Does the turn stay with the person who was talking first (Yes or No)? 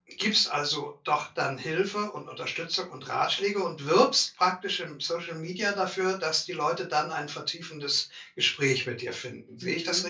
No